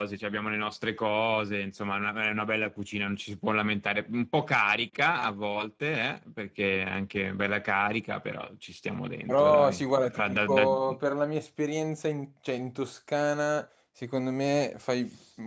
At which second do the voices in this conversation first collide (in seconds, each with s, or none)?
9.3 s